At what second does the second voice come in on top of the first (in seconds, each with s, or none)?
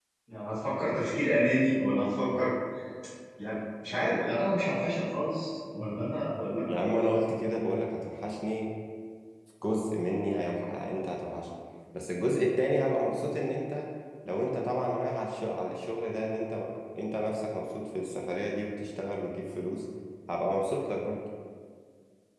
none